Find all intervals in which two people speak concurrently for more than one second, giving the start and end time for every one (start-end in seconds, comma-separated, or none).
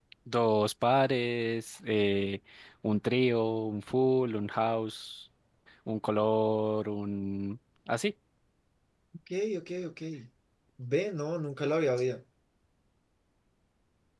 none